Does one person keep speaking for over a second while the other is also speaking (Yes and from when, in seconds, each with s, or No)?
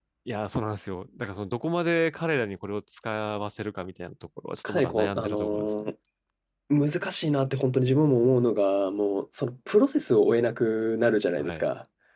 Yes, from 4.6 s